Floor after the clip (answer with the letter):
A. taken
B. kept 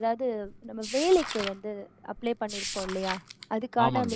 B